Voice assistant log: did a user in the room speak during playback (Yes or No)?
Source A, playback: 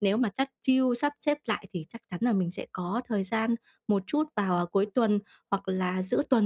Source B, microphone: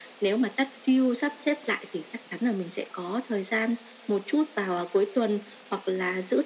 No